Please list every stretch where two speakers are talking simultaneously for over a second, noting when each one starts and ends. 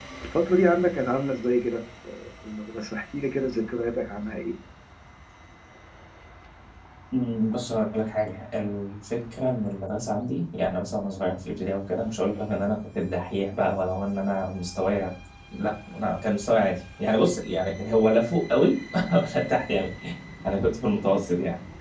none

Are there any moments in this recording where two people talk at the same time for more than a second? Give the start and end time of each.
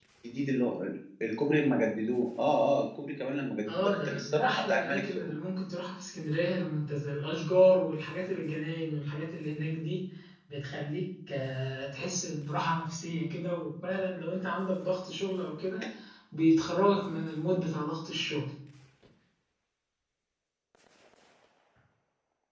3.7-5.3

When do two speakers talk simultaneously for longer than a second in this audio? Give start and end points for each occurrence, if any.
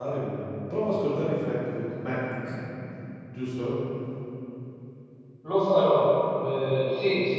none

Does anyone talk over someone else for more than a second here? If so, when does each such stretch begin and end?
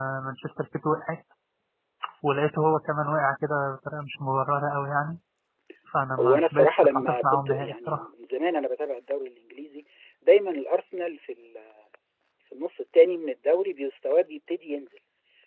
6.2-8.1

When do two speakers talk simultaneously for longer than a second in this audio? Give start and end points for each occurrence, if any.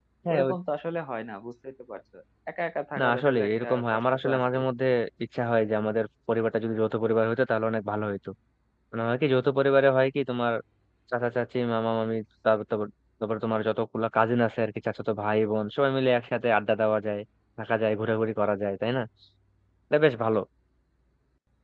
3.0-4.6

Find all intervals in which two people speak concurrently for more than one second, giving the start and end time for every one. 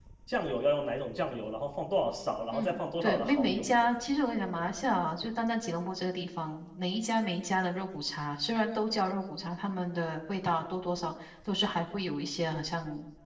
2.5-3.7

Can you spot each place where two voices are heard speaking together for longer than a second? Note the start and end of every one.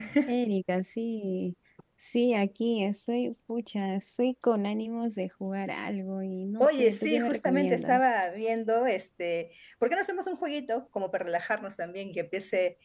6.6-8.1

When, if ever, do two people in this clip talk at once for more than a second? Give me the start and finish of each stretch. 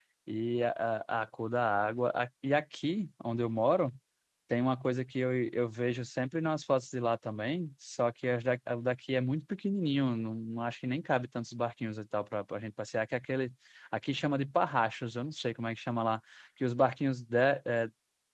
none

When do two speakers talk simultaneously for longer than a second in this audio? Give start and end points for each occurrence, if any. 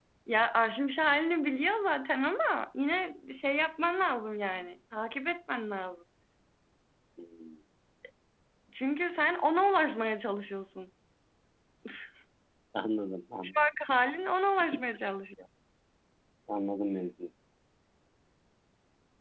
none

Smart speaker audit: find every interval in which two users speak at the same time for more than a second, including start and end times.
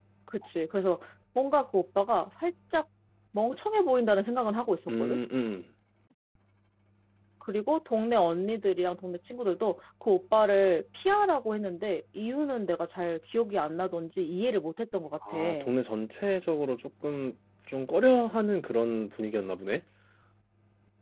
none

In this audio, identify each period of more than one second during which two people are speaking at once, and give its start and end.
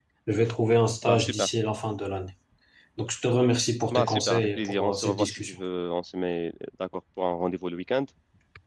3.9-5.6

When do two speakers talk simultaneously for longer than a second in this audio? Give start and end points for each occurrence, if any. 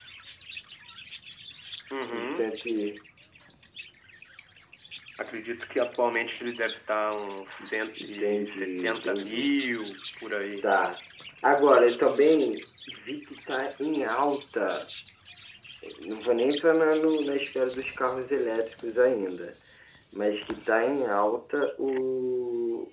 8.0-9.5

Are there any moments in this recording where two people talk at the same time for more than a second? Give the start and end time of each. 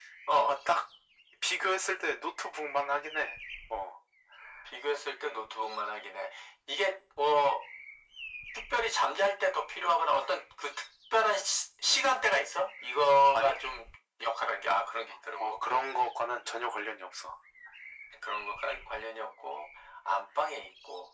none

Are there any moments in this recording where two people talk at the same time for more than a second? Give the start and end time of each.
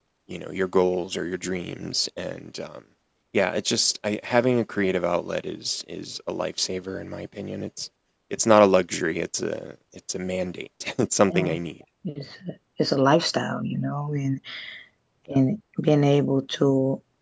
none

